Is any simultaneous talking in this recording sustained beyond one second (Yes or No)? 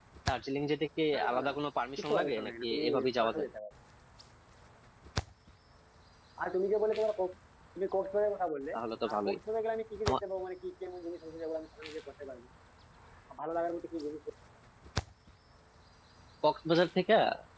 Yes